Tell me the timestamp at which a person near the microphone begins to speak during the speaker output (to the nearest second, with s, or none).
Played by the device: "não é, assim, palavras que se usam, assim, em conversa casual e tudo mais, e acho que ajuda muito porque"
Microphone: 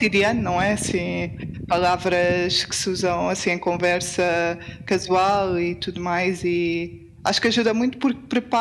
none